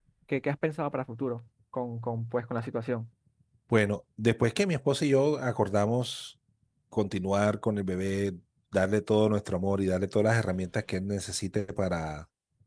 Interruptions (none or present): none